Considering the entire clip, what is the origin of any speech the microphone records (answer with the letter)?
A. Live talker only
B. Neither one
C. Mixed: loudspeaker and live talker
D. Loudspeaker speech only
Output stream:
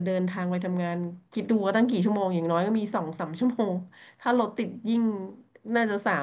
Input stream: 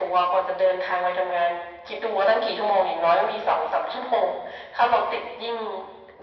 D